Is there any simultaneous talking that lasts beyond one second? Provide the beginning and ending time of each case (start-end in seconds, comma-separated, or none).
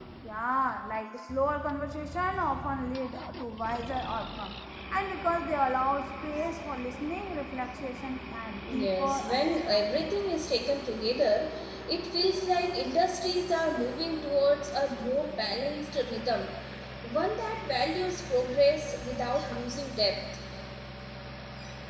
8.7-10.1